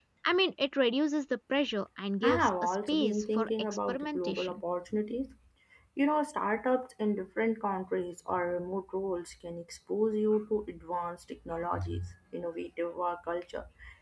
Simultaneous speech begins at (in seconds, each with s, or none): 2.2 s